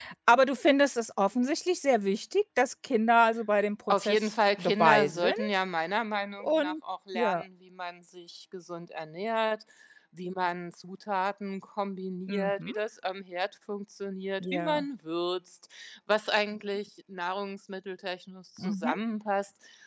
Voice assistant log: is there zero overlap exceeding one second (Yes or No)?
No